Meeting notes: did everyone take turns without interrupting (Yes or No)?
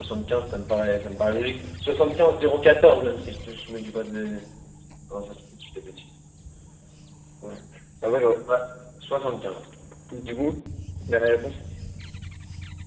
Yes